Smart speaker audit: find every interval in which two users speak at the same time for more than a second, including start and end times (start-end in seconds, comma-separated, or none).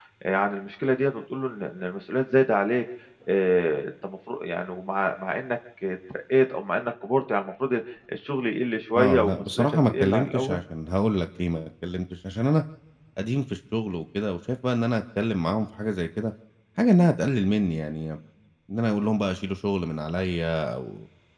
9.0-10.6